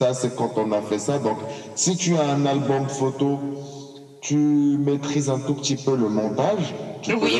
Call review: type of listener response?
taking over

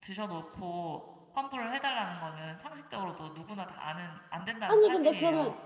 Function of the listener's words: taking over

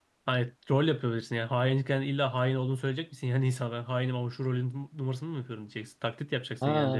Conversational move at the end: taking over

